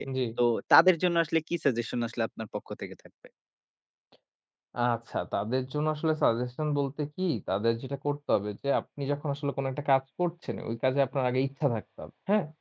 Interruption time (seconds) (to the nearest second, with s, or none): none